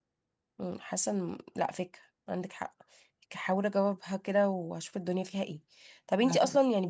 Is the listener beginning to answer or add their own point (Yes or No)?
No